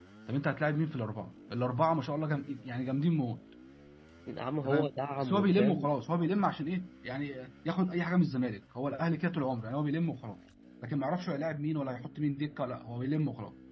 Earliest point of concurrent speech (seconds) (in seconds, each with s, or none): 4.7 s